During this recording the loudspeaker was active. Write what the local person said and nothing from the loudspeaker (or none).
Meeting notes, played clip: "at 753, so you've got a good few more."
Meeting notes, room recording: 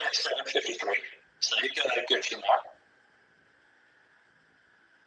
none